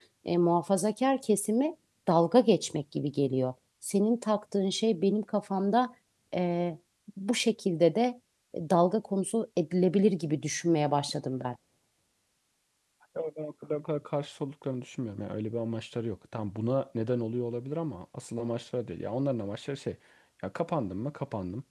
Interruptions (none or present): none